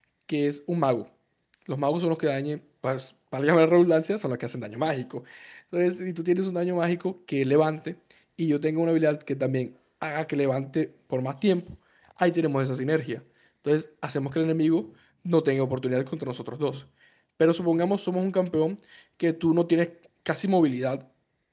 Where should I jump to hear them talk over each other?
none

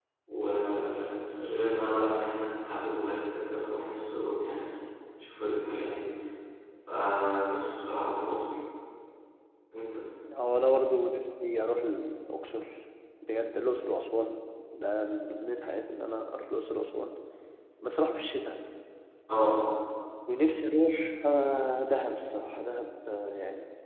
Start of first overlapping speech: none

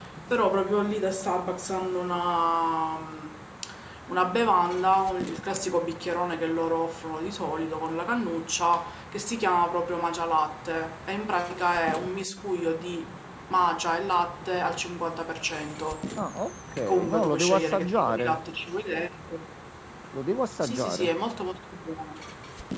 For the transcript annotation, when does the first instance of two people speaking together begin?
16.9 s

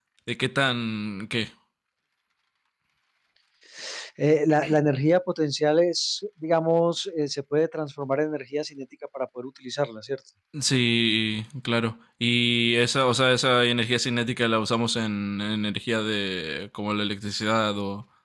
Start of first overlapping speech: none

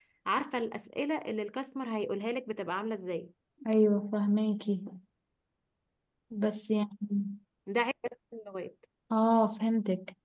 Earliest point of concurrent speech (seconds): none

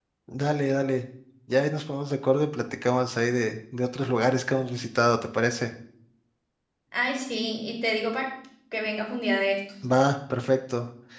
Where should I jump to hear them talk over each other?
none

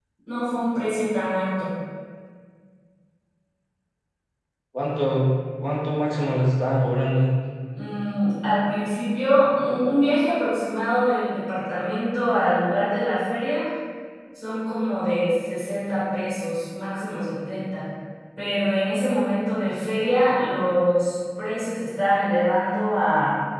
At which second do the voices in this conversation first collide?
none

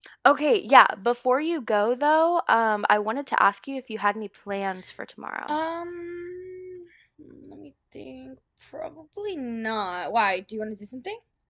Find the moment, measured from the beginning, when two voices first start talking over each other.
none

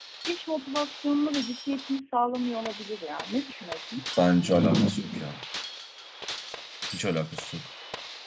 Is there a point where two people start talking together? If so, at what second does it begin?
none

